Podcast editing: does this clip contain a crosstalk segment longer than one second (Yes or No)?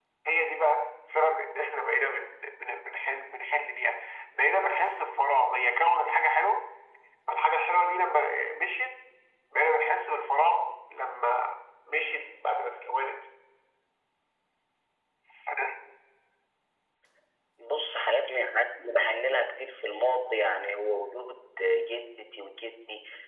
No